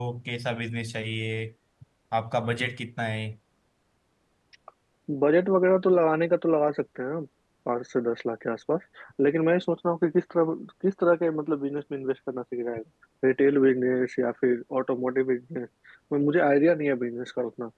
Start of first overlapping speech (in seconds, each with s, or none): none